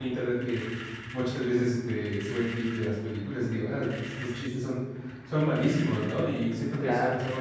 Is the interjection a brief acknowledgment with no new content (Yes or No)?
Yes